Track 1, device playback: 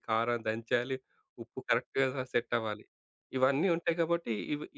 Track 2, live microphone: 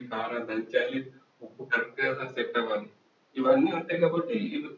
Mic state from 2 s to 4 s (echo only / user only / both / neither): echo only